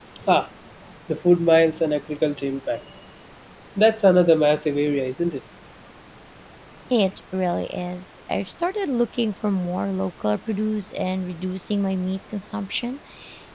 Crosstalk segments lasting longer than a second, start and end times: none

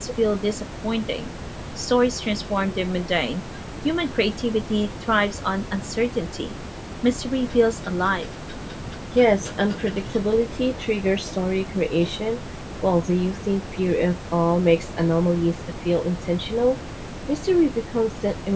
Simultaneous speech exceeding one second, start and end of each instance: none

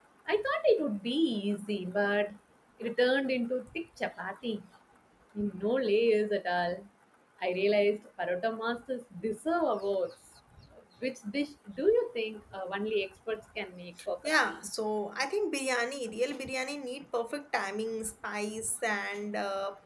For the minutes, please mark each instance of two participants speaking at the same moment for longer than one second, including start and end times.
none

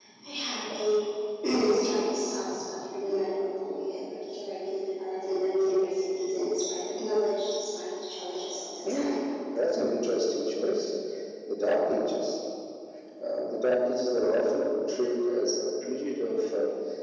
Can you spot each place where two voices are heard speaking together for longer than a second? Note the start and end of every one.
none

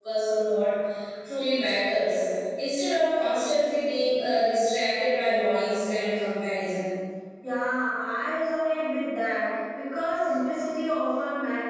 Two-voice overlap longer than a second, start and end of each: none

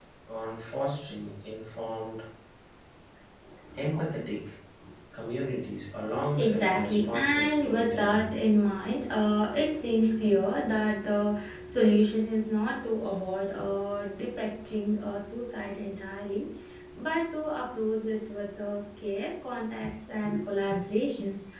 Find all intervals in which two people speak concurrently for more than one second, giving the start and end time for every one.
6.3-8.3

